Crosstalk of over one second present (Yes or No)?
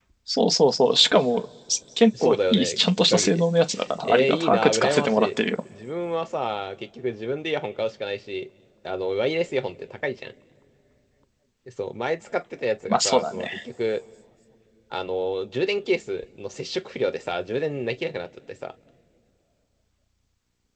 Yes